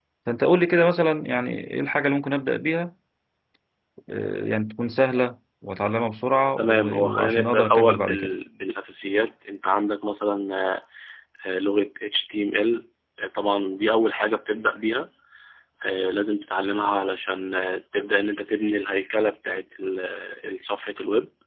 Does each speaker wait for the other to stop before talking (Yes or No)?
No